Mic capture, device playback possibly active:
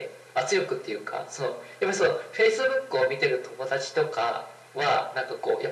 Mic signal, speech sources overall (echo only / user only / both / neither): echo only